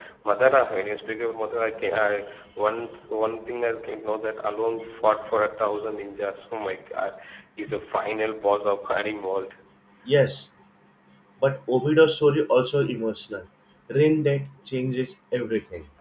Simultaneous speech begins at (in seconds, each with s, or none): none